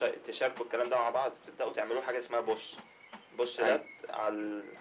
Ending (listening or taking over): listening